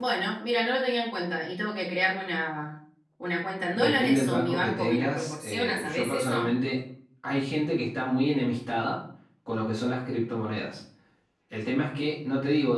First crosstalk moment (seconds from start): 3.7 s

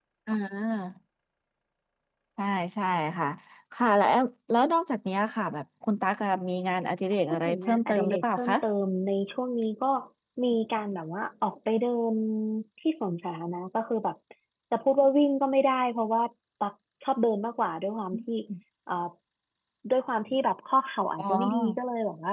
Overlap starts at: 7.3 s

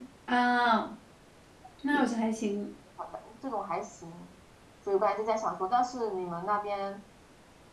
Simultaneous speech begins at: none

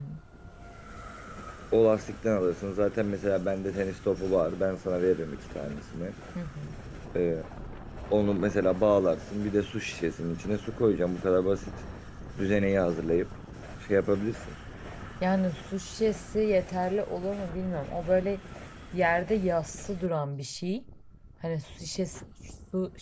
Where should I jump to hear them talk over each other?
none

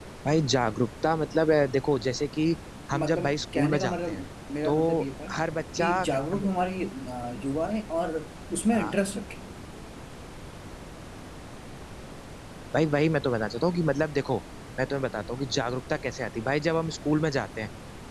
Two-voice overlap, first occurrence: 3.0 s

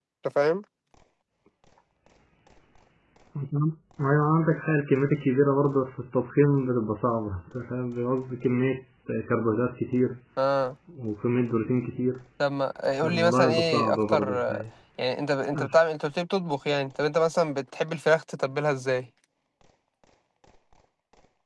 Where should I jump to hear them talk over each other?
13.0 s

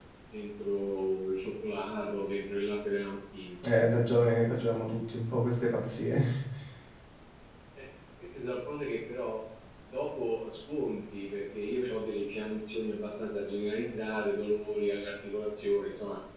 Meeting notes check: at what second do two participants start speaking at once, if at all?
none

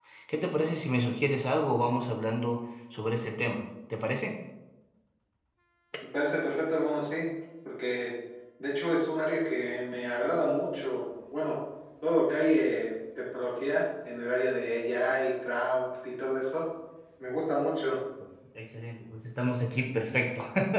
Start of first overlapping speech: none

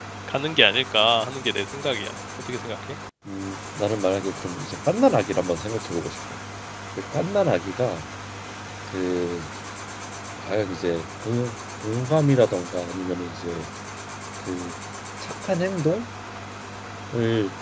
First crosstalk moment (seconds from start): none

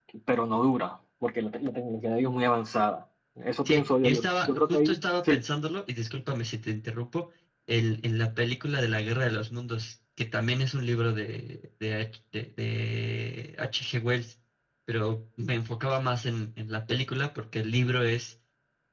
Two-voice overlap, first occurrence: 3.6 s

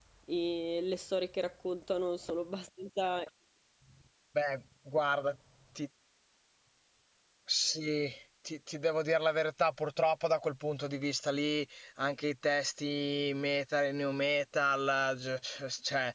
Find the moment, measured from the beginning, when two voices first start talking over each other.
none

